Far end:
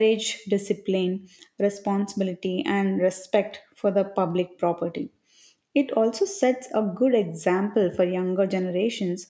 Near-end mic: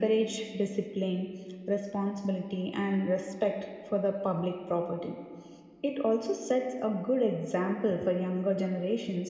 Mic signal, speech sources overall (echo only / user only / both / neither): echo only